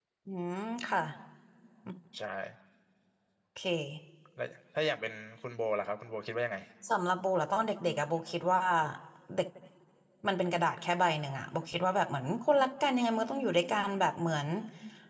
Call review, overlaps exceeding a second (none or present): none